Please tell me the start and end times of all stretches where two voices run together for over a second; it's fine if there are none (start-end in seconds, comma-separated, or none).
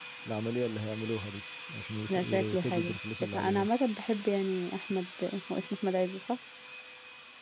2.1-3.7